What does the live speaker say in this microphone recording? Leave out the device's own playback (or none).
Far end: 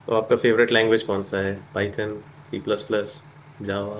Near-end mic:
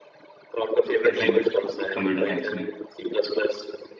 इसी में कंप्यूटर साइंस में